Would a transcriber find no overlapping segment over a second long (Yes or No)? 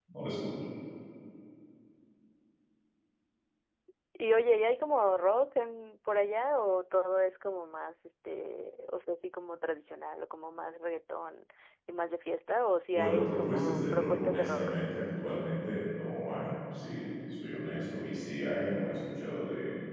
No